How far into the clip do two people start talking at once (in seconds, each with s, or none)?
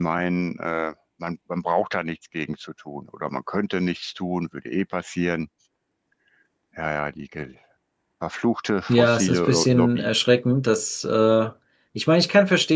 8.9 s